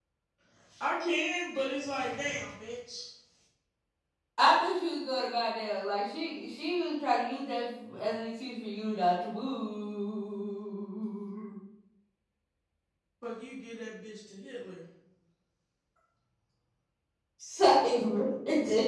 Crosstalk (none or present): none